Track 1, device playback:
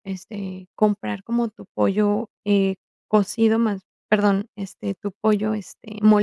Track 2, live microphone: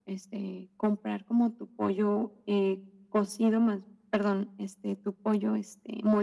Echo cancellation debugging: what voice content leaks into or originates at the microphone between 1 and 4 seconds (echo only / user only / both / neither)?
echo only